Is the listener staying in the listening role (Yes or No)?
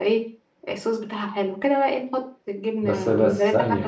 No